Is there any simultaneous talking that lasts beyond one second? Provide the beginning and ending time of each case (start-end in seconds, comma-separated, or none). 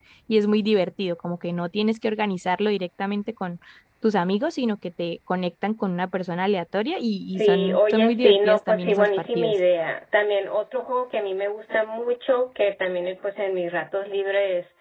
7.4-9.5